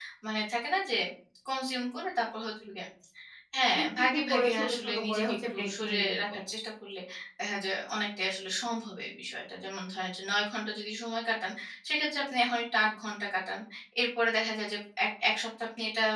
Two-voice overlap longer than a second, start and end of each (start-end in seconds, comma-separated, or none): 3.8-6.4